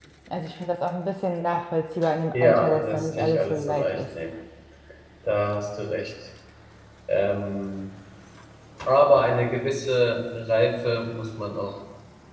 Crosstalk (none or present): present